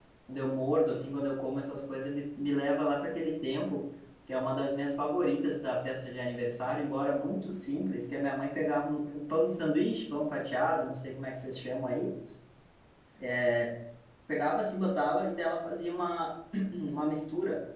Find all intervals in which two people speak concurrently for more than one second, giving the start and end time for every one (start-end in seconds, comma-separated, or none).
none